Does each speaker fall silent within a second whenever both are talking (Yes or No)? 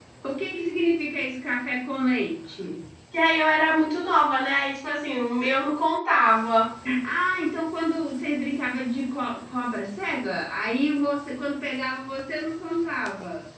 Yes